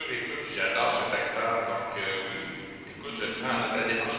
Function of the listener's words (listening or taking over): listening